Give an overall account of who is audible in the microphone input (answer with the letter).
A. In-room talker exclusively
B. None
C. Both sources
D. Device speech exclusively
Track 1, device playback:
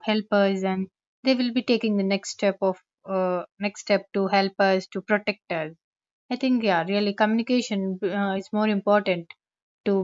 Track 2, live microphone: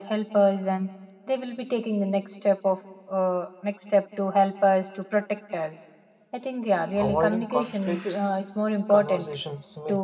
C